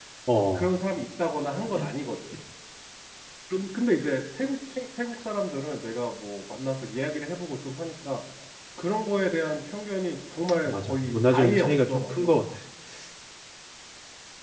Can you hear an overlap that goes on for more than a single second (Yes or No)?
Yes